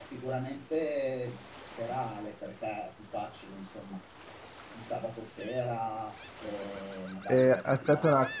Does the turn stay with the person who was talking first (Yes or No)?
No